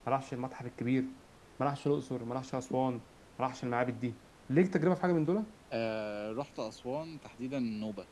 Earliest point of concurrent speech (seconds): none

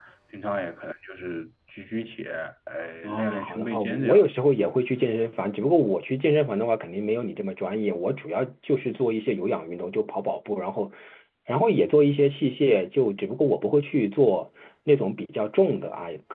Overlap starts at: 3.0 s

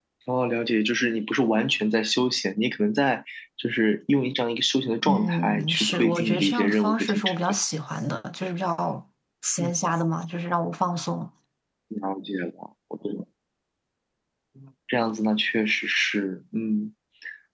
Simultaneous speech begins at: 5.0 s

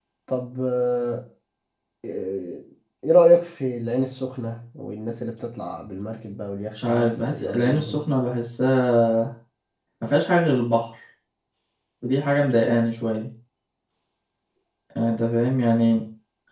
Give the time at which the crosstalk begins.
6.8 s

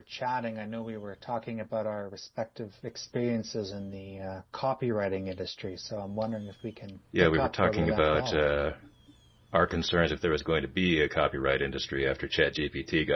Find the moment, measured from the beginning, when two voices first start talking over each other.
7.1 s

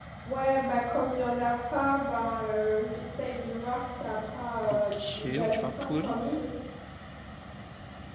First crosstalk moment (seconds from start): 4.7 s

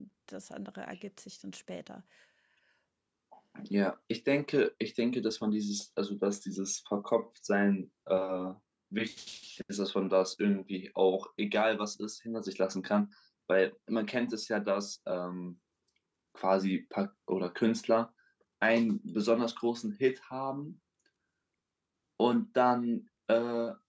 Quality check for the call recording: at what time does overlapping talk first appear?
none

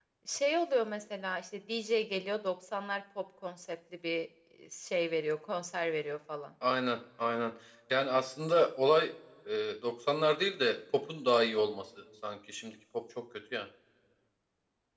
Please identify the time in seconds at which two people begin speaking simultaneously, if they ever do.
none

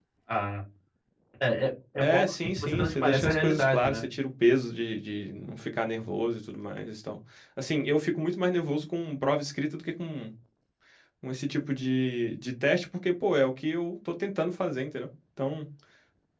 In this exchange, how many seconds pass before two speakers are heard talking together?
2.0 s

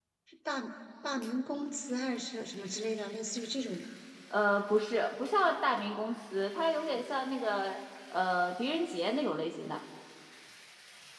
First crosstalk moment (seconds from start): none

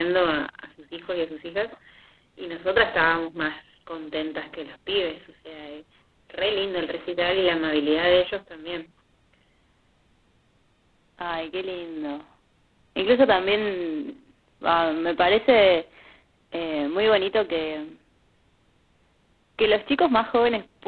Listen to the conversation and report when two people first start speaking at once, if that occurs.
none

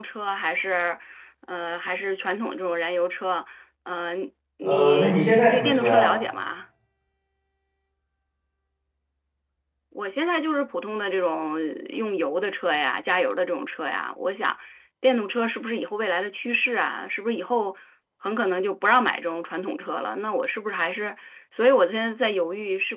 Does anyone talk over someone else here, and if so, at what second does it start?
4.6 s

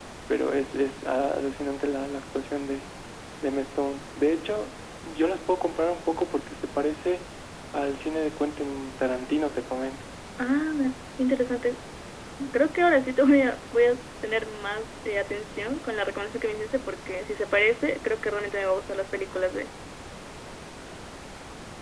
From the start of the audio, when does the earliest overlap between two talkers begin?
none

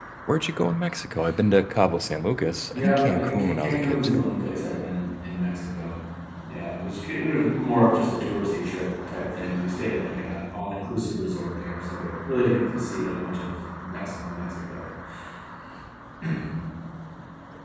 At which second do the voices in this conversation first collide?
2.7 s

